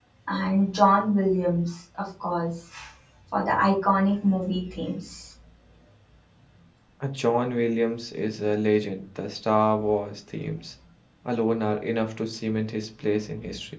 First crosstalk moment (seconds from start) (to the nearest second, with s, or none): none